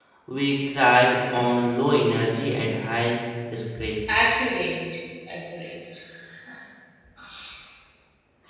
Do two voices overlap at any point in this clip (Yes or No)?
No